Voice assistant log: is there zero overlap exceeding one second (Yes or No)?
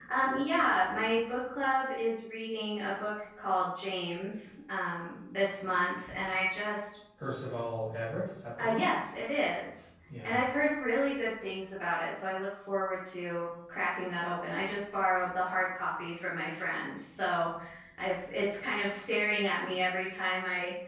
Yes